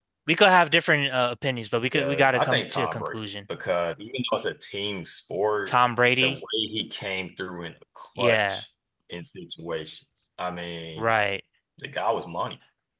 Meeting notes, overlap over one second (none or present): present